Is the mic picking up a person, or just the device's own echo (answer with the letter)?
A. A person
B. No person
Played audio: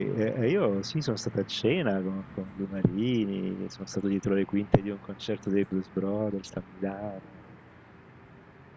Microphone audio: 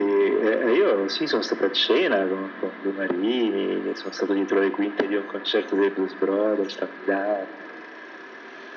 B